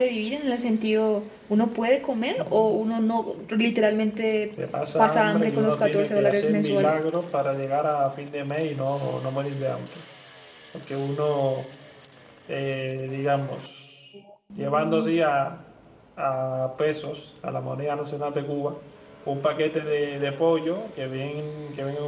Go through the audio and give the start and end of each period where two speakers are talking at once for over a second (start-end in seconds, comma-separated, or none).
5.0-6.9